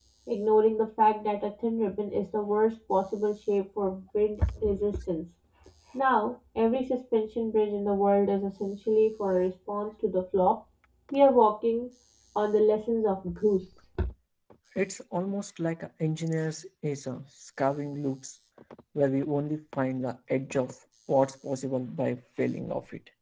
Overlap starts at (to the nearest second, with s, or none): none